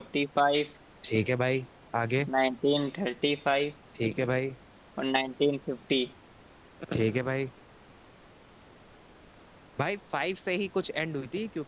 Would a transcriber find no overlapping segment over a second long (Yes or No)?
Yes